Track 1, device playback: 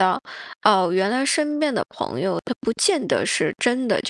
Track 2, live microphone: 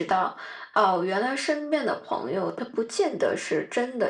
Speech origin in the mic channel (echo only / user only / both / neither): echo only